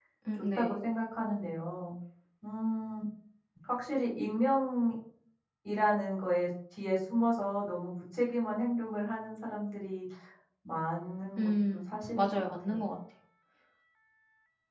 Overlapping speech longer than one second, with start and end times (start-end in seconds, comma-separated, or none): 11.4-12.9